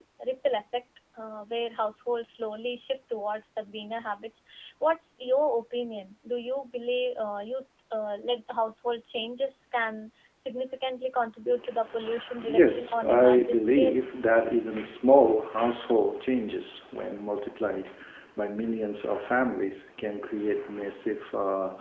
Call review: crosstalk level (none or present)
present